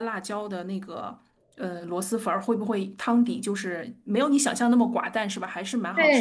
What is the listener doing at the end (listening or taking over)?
taking over